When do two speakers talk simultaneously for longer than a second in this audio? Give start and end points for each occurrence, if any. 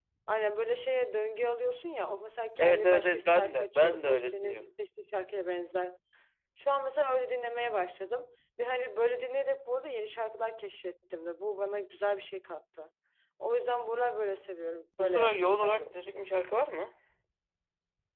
2.6-4.6, 15.0-16.2

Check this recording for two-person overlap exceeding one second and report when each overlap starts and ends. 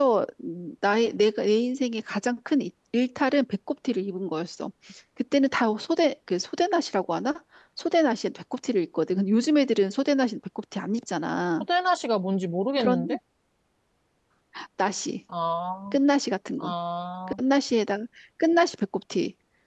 none

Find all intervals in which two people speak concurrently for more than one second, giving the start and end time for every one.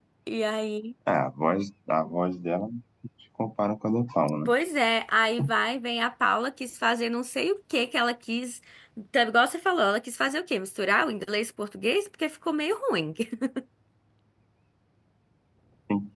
none

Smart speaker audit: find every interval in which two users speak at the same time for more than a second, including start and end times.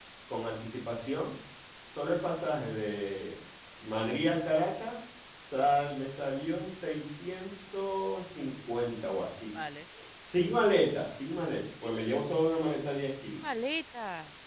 none

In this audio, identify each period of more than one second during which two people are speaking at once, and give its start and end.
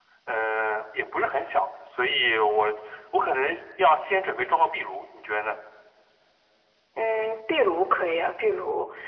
none

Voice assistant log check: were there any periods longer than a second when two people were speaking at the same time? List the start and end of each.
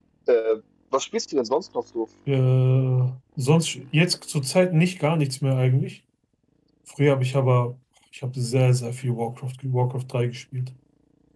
none

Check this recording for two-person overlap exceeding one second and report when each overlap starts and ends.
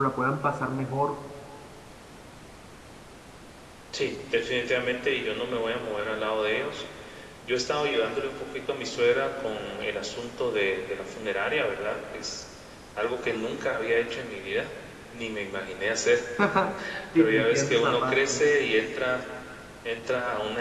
17.1-18.4

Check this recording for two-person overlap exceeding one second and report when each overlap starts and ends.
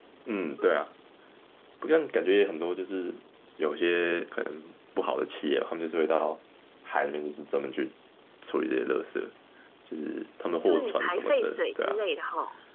10.6-12.0

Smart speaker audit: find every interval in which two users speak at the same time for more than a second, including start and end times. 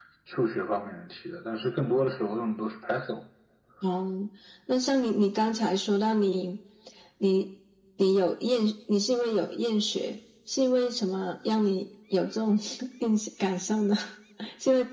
none

